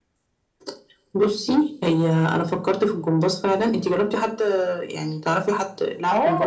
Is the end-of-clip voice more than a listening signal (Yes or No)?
Yes